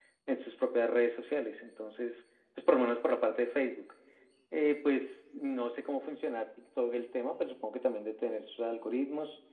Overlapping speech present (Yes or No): No